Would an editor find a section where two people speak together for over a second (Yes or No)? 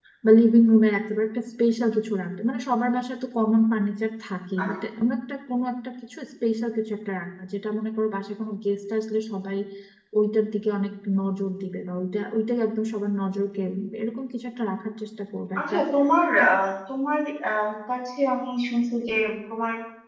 No